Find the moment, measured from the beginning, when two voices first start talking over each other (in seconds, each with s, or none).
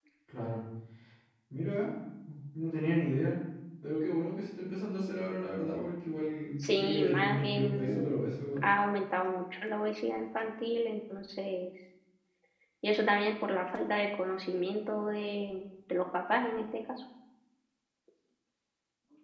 6.6 s